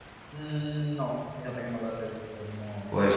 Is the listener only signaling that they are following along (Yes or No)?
No